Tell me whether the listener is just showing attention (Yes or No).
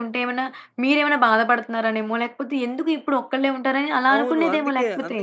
No